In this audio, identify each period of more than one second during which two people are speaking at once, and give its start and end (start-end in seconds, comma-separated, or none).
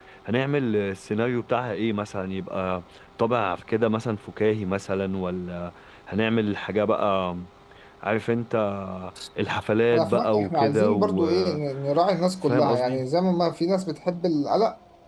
9.9-11.6